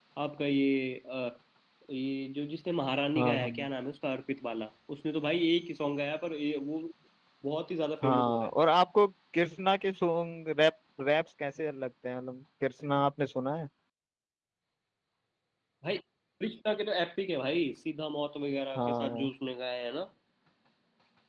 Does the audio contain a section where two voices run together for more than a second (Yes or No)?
No